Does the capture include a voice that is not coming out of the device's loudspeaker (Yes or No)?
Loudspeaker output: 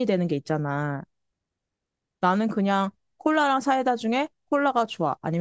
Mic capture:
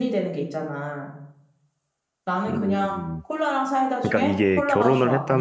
Yes